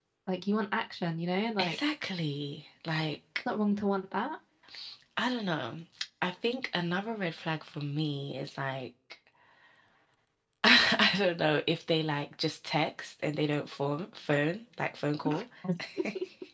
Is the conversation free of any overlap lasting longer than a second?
Yes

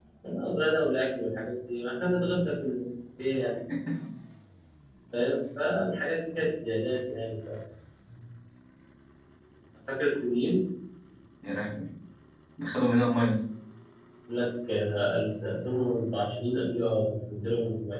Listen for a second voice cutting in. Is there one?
No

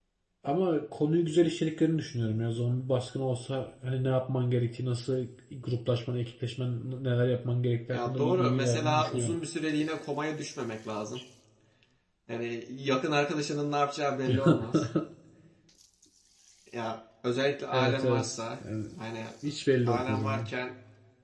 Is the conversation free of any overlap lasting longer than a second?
No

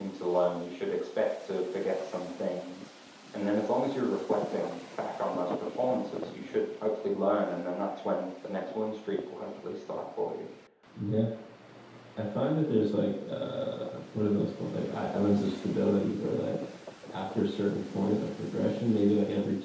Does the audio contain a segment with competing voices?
No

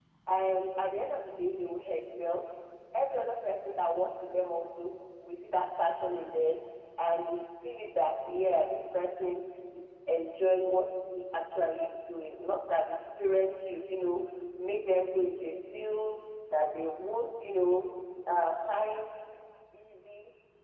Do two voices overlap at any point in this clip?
No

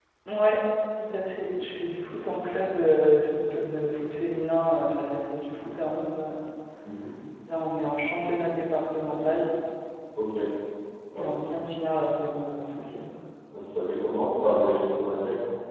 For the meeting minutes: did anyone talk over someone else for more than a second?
No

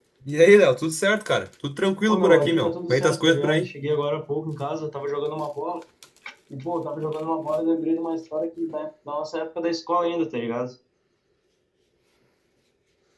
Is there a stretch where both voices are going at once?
Yes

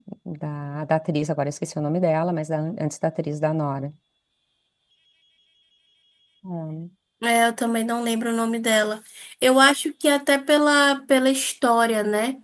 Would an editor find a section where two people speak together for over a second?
No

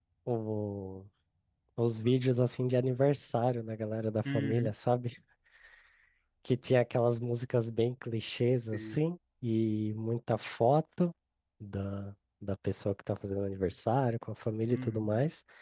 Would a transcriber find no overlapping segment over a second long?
Yes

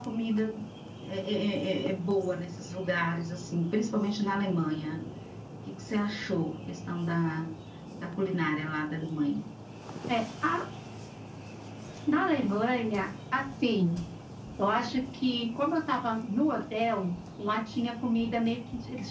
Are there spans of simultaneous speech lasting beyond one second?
No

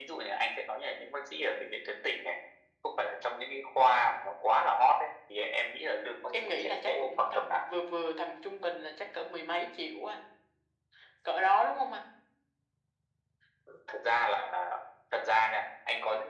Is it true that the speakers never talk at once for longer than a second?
No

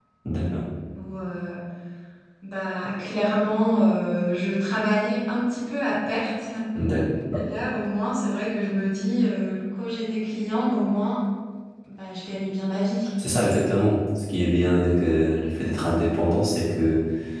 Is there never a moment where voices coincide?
Yes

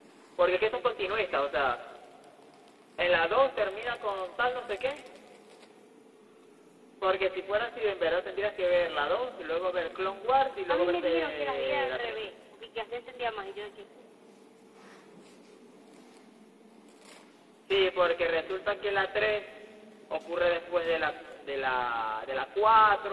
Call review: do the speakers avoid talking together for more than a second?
No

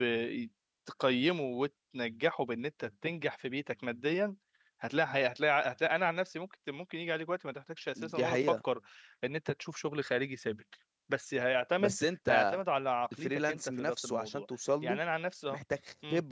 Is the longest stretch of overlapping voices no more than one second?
No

